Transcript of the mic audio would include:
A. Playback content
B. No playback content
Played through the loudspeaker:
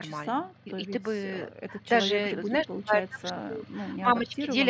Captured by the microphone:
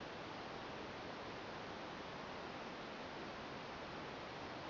B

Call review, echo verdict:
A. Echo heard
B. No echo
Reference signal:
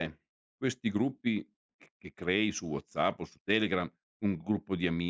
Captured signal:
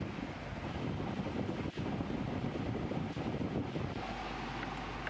B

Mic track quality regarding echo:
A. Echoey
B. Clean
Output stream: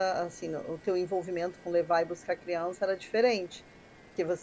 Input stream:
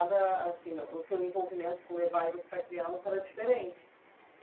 A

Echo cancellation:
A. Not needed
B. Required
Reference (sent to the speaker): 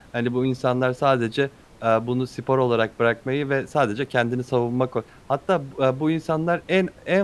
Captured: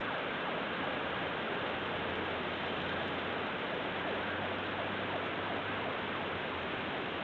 A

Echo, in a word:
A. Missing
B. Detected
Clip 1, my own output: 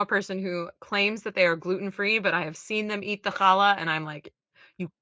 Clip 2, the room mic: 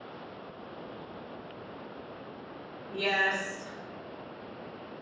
A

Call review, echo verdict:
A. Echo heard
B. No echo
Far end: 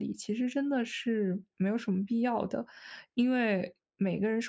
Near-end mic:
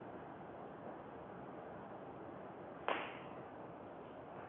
B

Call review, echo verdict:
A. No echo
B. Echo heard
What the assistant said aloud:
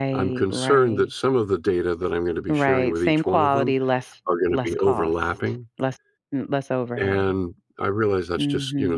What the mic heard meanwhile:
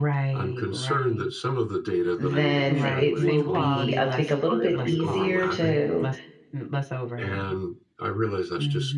B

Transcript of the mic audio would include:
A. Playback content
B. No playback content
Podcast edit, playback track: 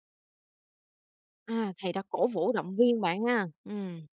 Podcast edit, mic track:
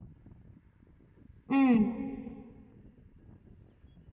B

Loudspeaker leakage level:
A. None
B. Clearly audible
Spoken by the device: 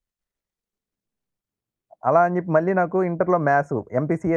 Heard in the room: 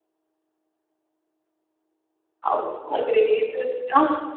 A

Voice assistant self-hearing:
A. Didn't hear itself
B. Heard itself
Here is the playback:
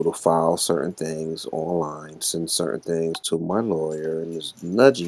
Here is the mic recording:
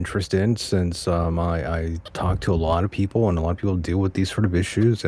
A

